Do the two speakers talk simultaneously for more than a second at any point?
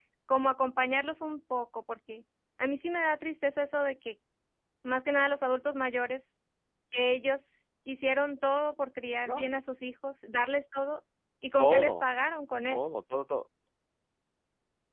No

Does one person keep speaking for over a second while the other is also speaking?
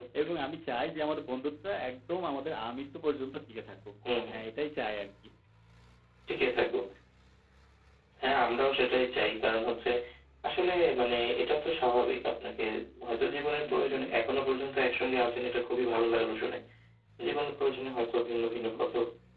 No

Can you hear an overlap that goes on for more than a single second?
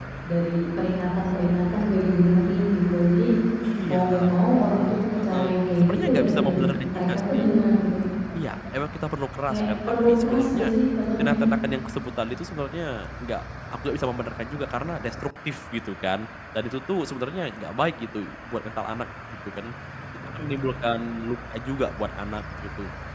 Yes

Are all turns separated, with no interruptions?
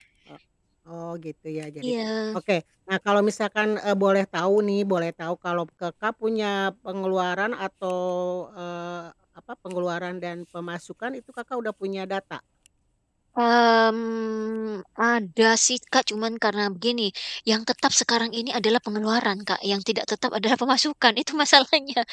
Yes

